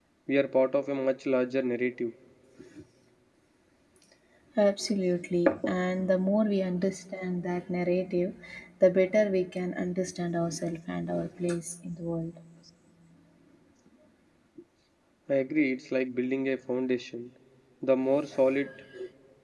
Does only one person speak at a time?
Yes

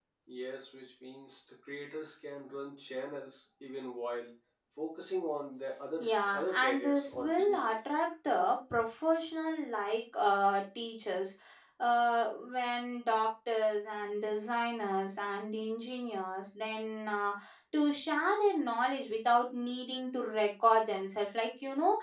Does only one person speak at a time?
No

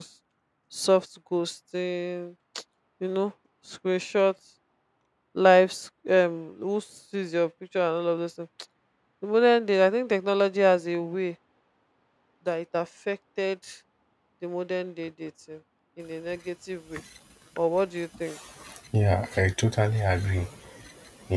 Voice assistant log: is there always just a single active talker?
Yes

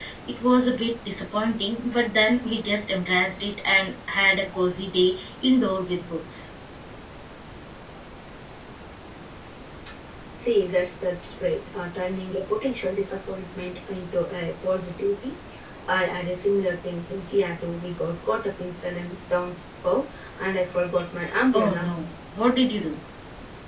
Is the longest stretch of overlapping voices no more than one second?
Yes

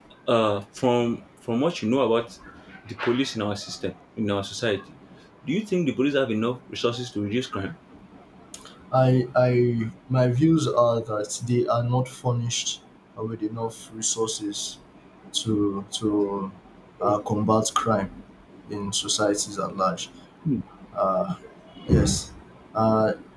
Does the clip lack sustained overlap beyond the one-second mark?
Yes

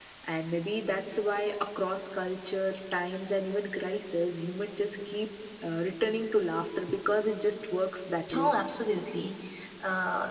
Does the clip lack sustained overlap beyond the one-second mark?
Yes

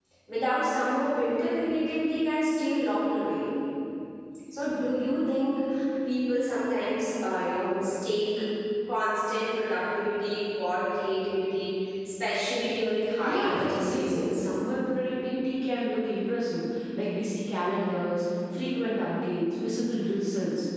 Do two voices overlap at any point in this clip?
Yes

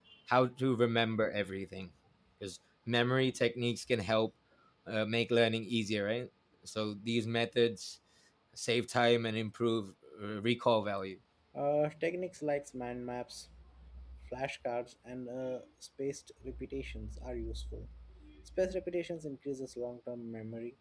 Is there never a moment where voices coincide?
Yes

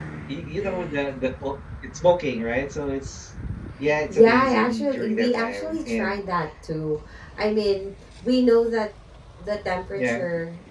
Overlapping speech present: Yes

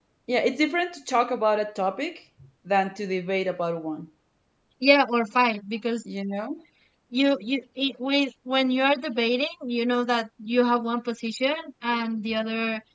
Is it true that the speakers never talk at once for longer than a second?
Yes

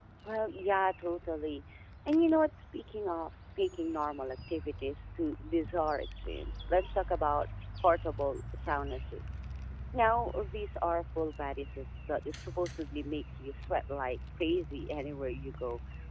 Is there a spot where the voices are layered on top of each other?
No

